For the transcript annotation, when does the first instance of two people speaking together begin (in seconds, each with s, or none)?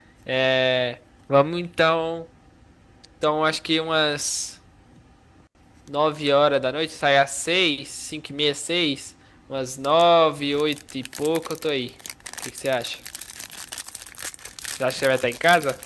none